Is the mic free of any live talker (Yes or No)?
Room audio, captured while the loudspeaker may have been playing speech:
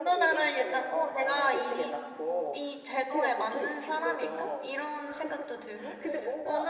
No